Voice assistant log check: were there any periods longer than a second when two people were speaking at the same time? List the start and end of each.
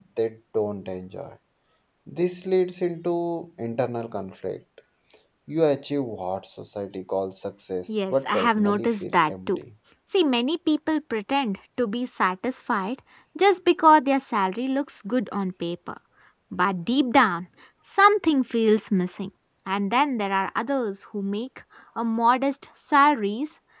7.9-9.6

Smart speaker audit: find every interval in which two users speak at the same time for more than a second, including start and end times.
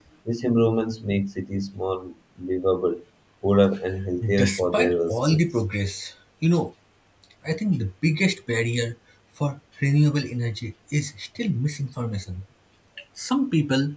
4.2-5.5

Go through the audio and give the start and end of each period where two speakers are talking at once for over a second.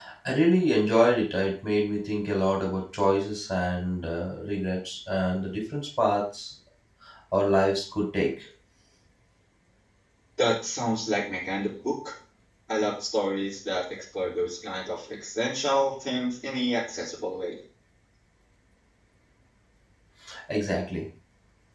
none

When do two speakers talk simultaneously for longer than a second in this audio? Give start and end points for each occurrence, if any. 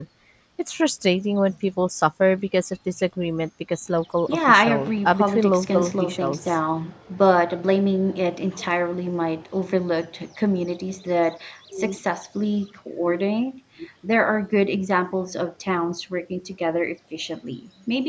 4.3-6.5

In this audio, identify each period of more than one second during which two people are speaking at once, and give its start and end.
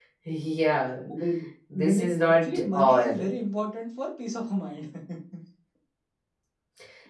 1.9-3.3

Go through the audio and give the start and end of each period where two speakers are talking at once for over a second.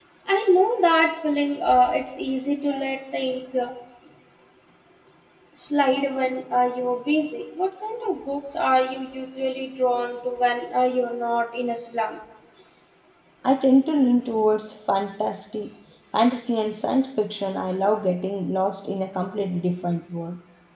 none

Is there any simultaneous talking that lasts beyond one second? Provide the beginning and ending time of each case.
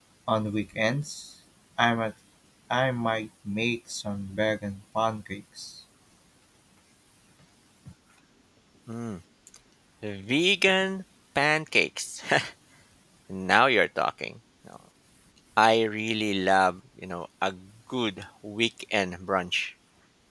none

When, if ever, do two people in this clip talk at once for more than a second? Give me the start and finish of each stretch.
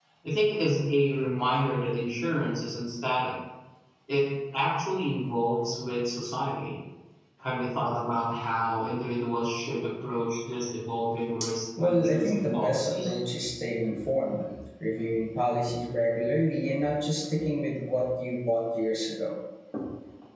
11.8-13.2

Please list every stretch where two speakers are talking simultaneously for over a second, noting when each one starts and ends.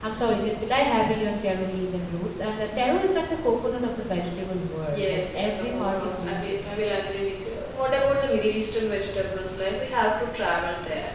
4.9-6.7

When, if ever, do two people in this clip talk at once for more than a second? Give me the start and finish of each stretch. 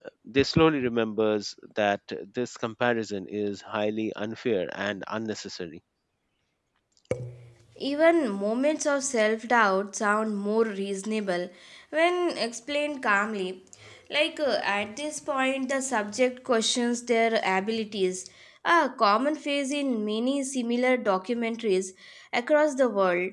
none

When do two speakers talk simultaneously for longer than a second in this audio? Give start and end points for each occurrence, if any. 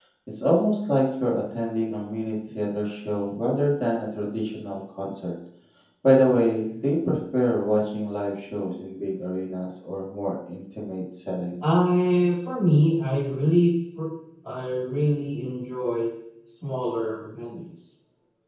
none

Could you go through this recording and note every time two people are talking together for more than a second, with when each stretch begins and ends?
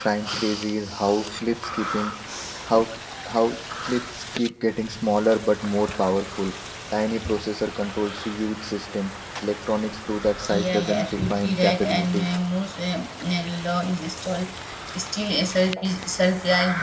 10.5-12.3

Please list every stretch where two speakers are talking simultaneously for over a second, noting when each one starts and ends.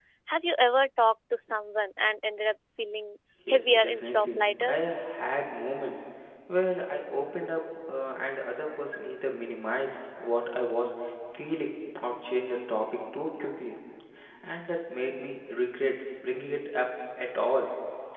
3.5-4.8

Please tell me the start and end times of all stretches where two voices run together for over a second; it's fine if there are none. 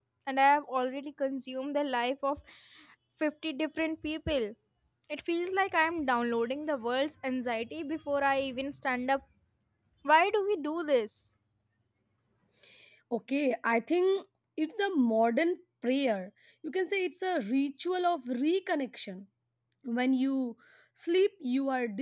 none

